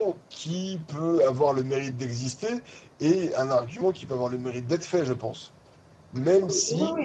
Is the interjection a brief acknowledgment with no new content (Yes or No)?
No